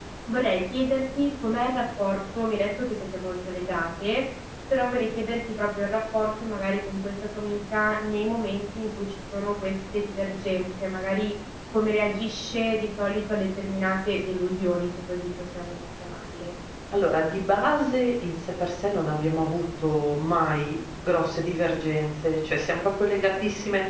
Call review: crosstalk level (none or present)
none